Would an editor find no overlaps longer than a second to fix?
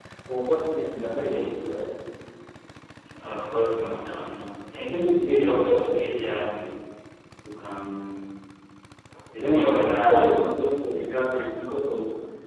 No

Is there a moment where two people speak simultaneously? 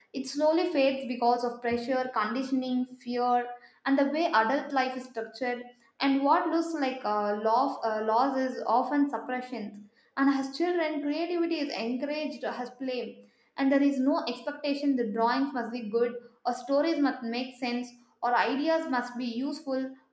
No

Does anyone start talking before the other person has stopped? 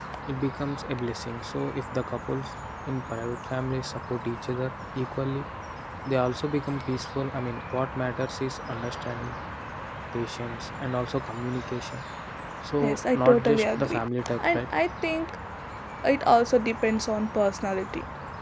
Yes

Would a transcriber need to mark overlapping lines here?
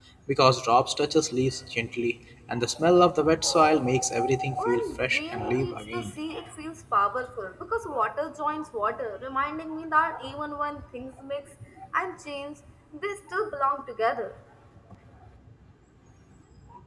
Yes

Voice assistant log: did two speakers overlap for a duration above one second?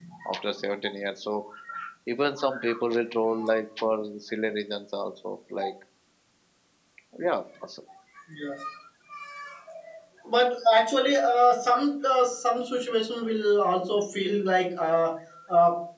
No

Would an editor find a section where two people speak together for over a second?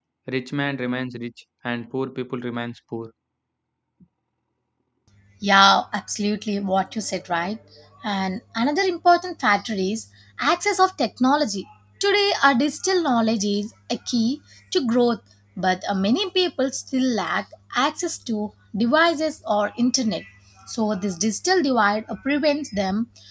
No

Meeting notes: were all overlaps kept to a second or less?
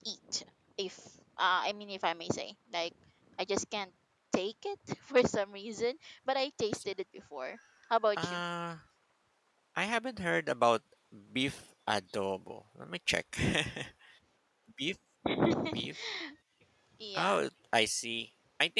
Yes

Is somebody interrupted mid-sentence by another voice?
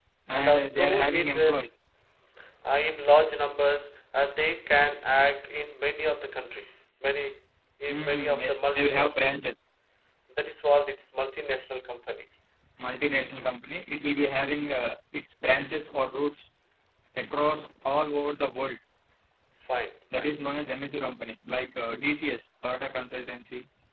Yes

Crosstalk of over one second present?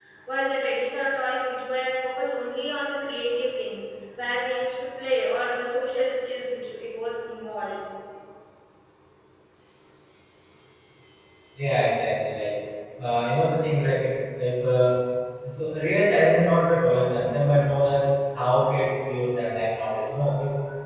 No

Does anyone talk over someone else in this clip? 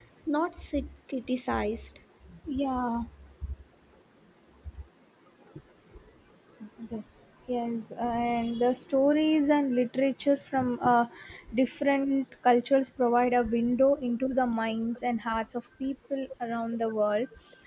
No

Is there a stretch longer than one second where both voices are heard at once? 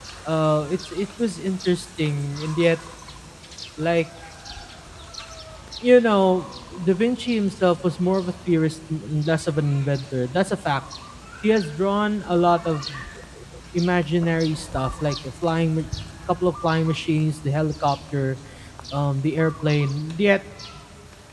No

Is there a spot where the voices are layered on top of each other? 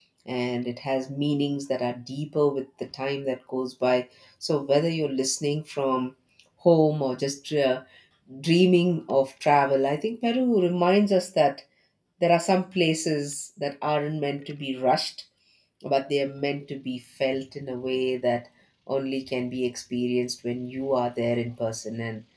No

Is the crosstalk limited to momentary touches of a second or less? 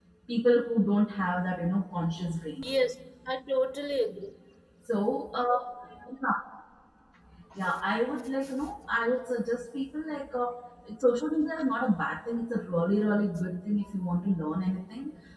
Yes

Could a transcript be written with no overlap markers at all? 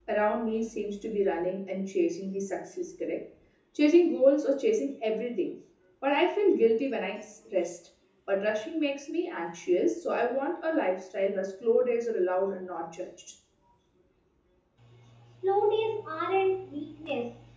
Yes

